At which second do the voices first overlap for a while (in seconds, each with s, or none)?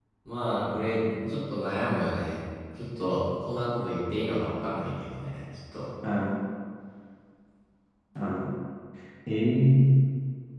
none